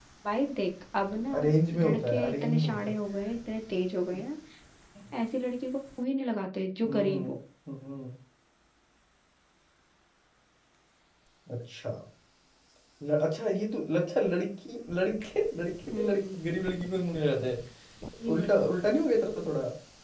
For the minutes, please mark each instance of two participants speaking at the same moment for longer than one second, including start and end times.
1.7-2.9

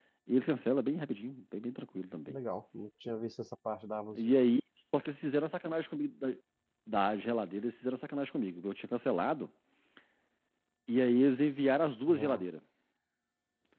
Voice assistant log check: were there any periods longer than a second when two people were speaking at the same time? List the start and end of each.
none

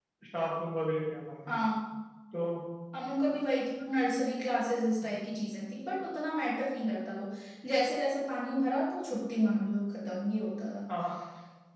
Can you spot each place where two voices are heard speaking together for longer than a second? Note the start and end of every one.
none

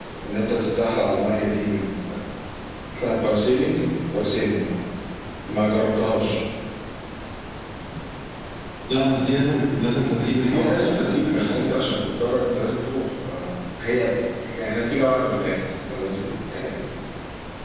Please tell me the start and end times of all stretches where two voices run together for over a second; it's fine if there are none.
10.4-11.8

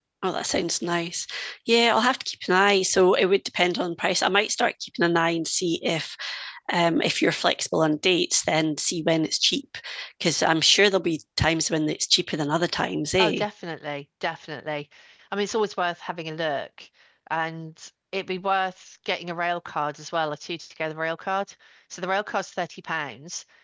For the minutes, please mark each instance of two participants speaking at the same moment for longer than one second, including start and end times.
none

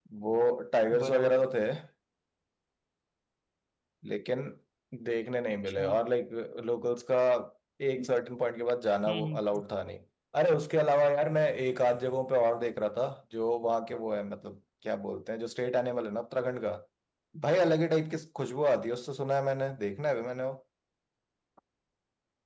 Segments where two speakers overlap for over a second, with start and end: none

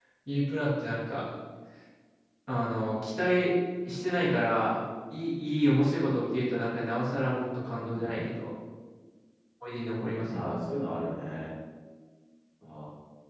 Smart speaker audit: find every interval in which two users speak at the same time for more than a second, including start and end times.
none

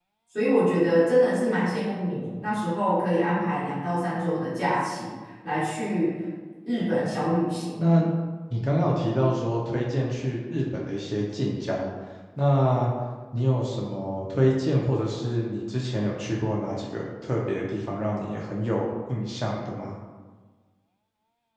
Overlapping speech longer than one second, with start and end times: none

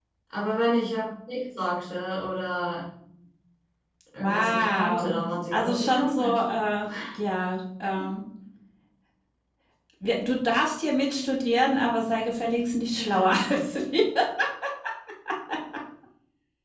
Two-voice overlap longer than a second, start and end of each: 4.2-6.4

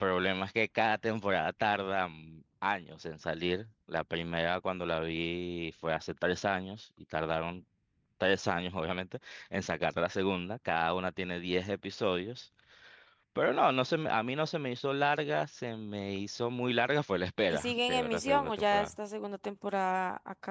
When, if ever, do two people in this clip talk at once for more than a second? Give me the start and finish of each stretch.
17.5-19.0

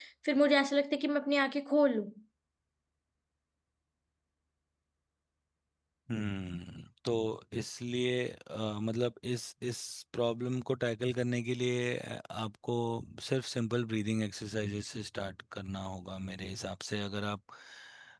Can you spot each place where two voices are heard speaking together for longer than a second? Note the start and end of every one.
none

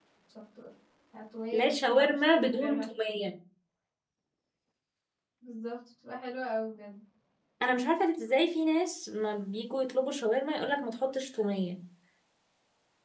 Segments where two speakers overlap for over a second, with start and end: 1.5-2.9

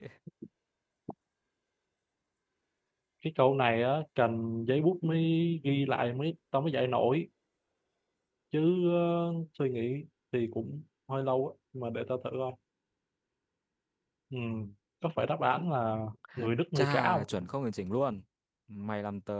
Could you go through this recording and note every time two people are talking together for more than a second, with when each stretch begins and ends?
none

